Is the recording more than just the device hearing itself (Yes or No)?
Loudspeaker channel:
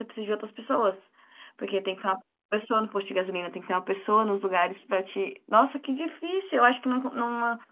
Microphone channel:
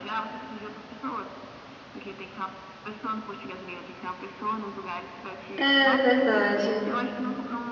Yes